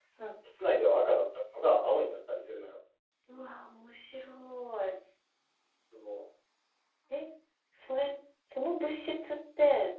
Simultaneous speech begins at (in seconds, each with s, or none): none